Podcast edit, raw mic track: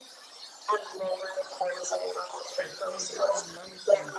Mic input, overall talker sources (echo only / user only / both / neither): both